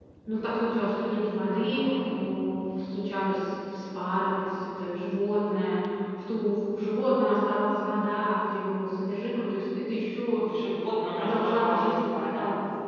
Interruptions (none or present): present